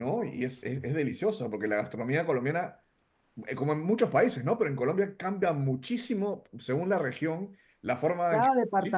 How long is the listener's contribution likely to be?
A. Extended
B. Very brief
A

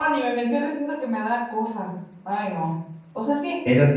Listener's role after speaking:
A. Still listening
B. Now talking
A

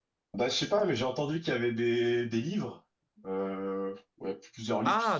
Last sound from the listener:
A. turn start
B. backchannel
A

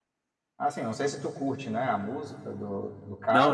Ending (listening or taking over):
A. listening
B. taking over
B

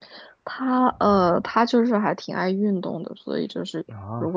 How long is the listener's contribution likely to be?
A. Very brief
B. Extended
A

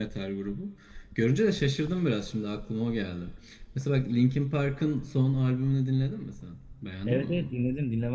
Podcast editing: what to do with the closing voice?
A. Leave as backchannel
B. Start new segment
B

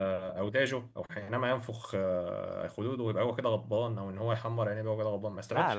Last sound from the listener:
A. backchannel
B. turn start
B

